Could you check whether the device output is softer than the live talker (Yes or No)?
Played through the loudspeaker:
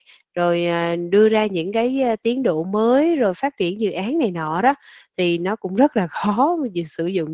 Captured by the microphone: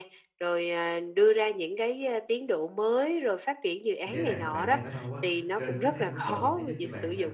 No